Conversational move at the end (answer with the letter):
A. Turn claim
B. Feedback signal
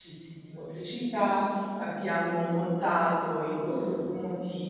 B